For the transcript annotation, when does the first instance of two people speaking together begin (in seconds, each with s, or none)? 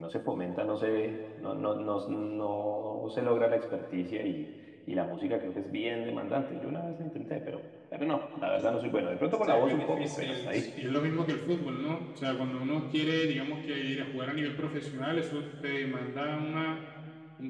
9.4 s